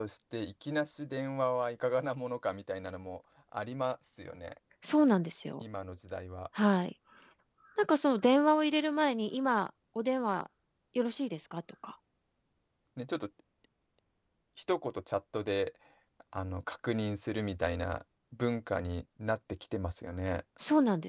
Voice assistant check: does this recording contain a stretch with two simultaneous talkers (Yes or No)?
No